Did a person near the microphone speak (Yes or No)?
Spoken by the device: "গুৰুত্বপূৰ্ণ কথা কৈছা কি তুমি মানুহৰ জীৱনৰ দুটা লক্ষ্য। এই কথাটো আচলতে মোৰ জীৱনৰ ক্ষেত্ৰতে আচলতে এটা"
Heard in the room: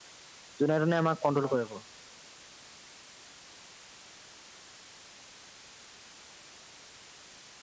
Yes